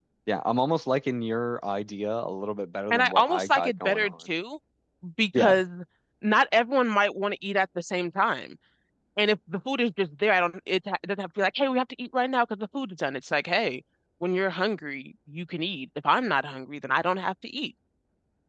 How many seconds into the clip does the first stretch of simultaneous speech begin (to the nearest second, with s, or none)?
3 s